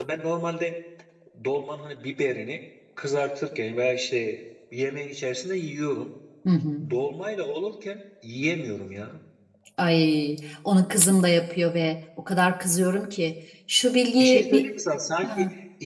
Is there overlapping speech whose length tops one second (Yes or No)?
No